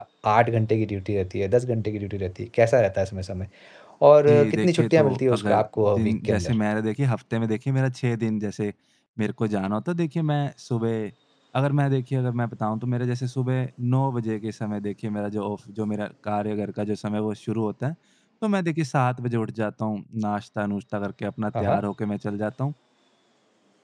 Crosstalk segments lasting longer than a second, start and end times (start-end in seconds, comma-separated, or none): 4.3-6.5